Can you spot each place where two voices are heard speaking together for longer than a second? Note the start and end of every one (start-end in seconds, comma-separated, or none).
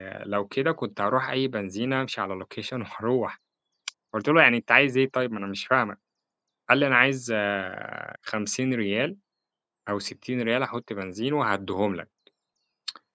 none